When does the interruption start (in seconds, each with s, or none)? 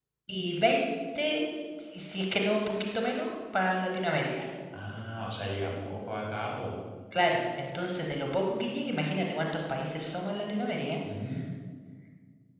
none